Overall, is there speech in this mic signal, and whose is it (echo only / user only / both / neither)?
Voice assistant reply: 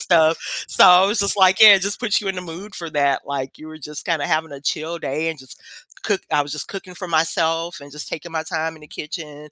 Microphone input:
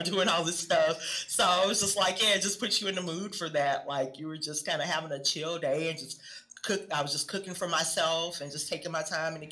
echo only